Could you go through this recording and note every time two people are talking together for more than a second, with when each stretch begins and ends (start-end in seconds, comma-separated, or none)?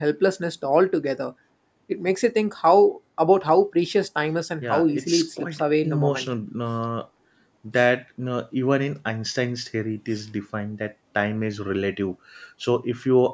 4.6-6.3